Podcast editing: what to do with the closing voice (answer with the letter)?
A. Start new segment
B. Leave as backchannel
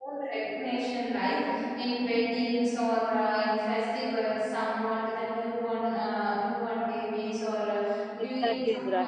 A